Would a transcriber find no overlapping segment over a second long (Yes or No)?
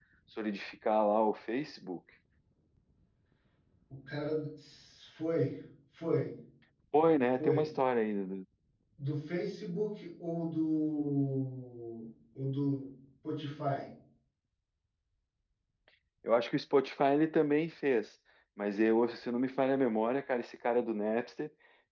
Yes